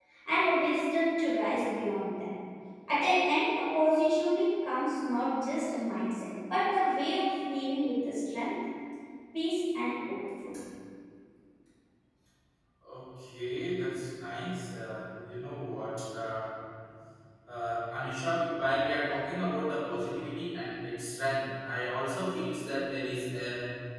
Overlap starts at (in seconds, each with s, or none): none